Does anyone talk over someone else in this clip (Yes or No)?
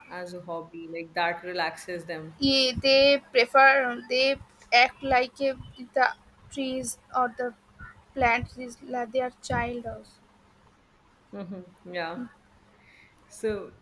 No